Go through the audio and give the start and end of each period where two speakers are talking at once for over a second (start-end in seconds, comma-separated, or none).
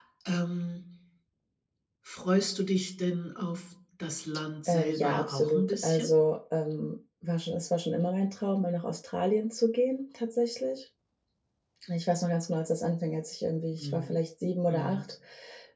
4.7-6.2